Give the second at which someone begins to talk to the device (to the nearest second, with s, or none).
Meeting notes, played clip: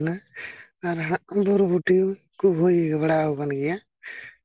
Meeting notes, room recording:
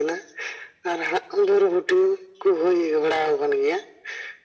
none